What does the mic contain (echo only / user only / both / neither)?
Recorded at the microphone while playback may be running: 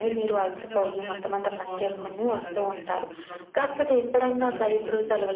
both